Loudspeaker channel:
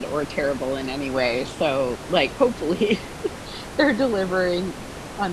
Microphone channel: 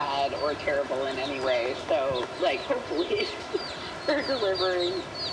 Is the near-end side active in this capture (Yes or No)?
No